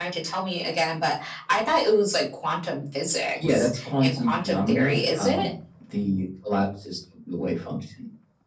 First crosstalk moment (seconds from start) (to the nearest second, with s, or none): 3 s